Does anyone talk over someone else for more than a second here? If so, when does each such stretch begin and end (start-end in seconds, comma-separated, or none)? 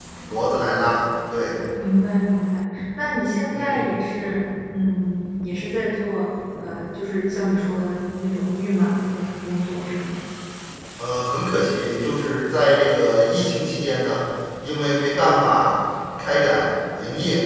none